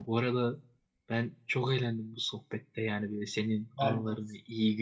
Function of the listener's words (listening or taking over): listening